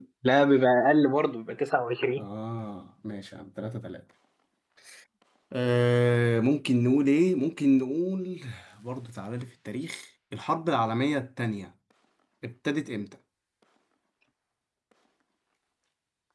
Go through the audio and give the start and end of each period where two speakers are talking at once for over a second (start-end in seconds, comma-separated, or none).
none